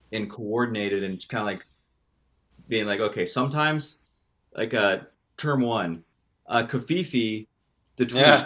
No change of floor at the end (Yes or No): Yes